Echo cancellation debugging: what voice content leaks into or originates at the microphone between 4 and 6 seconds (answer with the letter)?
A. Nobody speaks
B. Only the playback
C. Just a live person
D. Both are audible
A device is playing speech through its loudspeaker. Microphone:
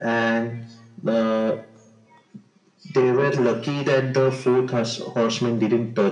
B